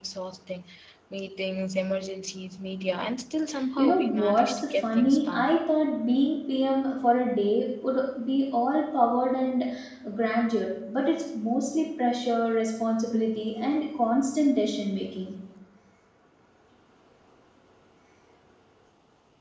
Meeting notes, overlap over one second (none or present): present